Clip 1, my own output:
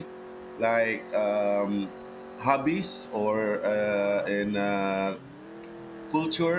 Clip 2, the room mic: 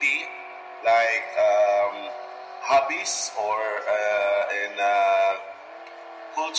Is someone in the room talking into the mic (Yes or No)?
No